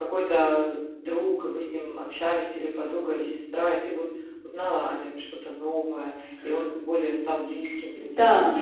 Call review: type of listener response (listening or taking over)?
taking over